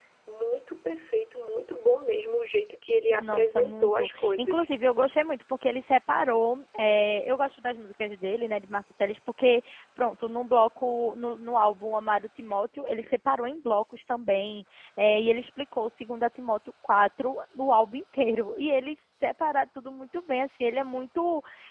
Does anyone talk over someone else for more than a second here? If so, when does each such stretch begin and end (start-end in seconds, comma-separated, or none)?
3.2-4.7